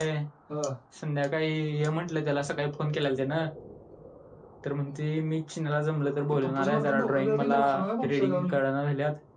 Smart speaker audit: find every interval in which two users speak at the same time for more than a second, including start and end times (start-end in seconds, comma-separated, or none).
6.3-7.6